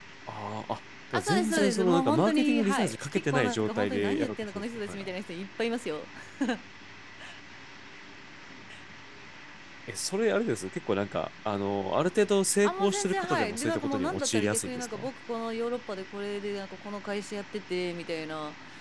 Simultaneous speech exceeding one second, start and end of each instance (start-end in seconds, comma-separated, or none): 1.1-5.1, 12.6-15.1